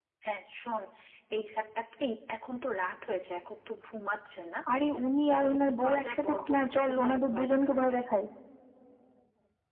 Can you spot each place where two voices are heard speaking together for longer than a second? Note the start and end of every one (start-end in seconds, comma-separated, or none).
5.3-8.0